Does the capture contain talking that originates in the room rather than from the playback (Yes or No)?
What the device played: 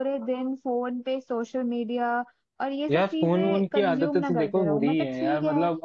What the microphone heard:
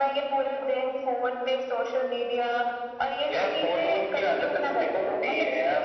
No